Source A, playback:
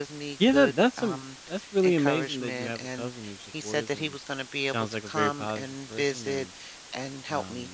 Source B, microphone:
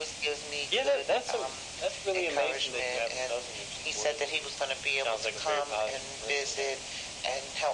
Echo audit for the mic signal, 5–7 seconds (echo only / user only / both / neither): echo only